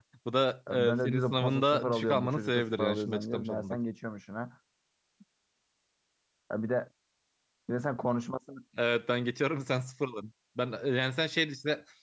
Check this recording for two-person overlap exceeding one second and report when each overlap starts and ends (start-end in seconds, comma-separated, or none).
0.8-3.8